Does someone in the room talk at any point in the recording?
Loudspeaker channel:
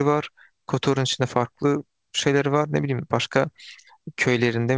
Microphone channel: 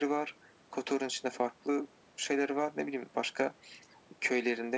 No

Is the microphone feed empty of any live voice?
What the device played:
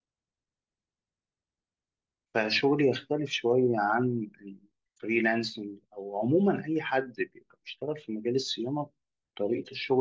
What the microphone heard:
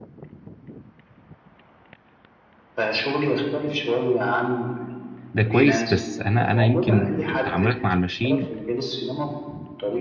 No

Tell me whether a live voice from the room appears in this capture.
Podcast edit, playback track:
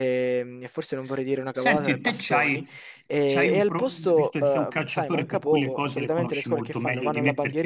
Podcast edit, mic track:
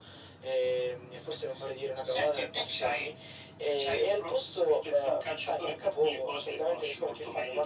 No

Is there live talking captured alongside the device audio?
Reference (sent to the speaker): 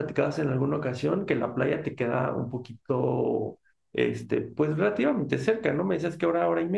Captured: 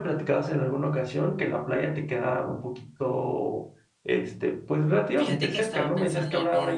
Yes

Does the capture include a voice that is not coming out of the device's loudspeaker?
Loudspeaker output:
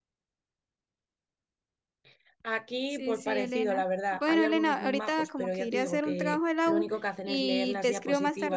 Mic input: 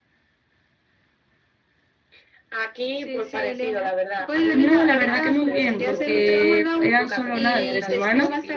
Yes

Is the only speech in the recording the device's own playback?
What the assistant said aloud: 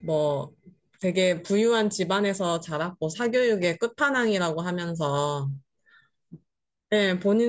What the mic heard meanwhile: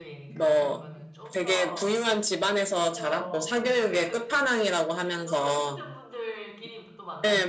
No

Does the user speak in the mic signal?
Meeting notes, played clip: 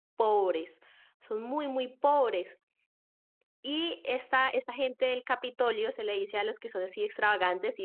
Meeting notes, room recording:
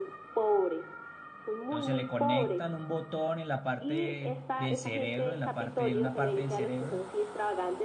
Yes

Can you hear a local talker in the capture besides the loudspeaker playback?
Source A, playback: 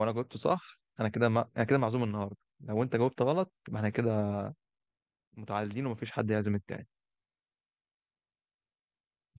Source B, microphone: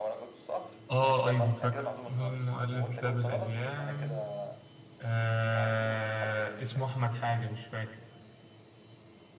Yes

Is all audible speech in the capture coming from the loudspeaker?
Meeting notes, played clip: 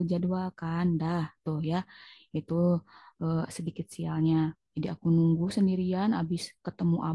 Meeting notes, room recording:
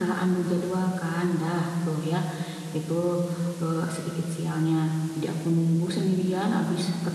Yes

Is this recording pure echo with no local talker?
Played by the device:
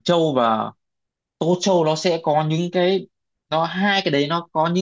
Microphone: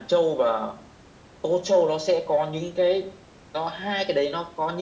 Yes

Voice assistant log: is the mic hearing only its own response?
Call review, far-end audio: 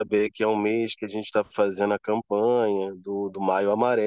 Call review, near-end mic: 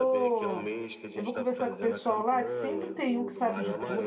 No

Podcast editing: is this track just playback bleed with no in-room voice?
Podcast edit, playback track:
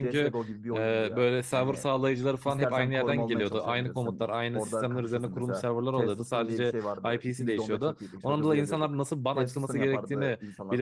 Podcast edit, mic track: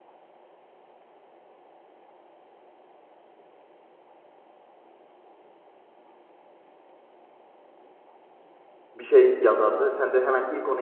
No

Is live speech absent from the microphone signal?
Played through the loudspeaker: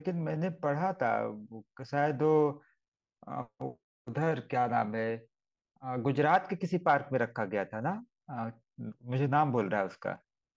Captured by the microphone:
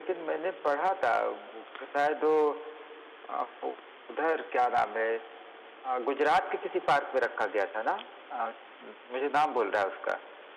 Yes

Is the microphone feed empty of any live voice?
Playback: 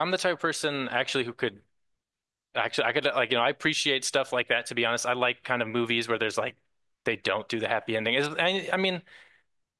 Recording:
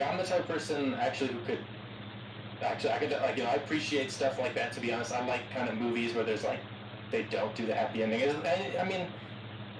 Yes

